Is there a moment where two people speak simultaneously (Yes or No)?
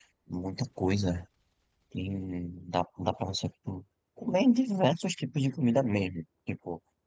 No